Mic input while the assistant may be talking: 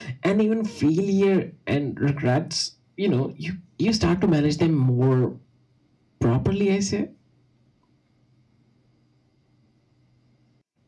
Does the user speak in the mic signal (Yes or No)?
No